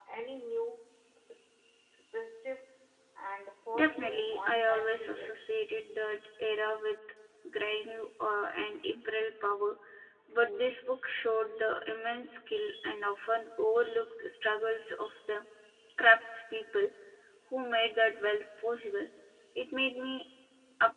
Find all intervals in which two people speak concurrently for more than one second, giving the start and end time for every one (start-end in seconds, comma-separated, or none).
3.7-5.4